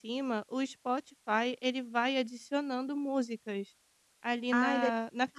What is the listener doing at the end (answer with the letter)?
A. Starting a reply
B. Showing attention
A